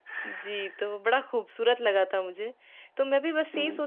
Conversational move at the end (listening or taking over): listening